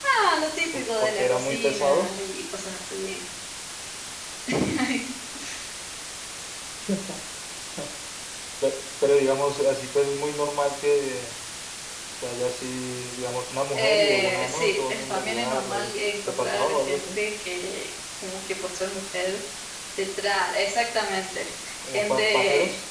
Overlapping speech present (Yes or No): Yes